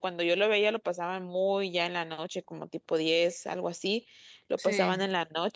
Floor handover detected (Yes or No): No